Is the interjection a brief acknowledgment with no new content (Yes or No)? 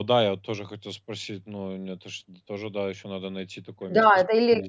No